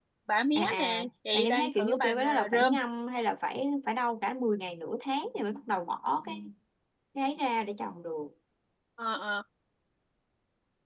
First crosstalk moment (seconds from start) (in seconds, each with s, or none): 0.6 s